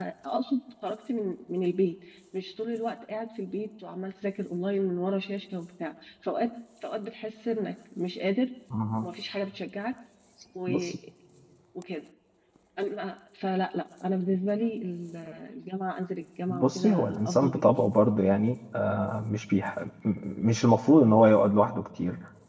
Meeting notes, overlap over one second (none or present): present